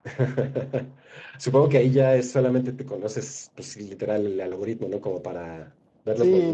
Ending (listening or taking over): taking over